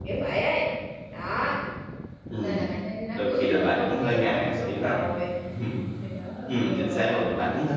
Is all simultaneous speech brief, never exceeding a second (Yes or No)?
No